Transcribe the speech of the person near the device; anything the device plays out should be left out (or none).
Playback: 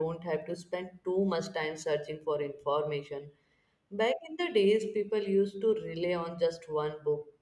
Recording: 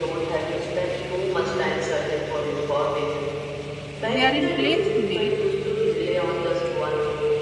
they are in place today